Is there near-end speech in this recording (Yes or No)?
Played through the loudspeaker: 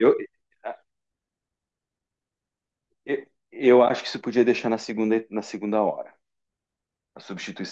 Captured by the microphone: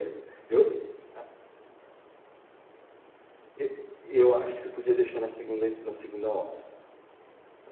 No